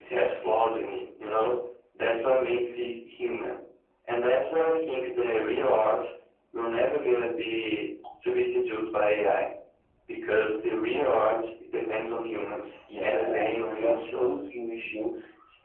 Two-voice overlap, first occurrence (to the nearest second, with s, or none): 13 s